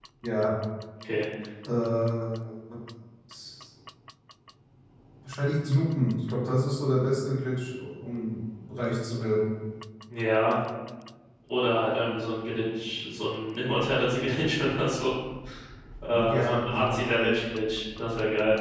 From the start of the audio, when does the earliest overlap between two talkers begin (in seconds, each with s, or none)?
16.1 s